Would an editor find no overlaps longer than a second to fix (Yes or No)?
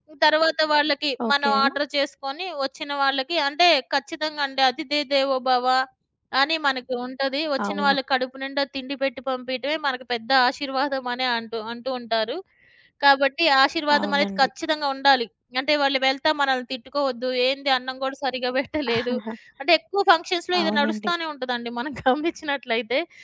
Yes